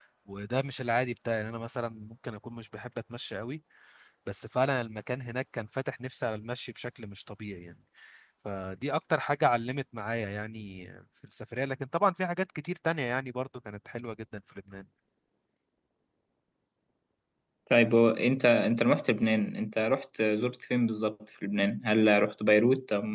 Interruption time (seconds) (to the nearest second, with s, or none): none